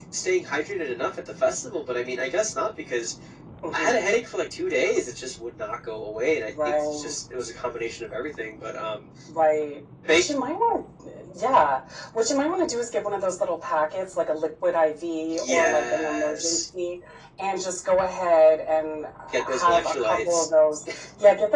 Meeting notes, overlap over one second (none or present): present